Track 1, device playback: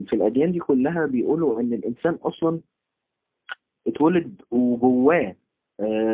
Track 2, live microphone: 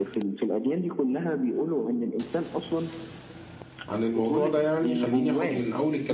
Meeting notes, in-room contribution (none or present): present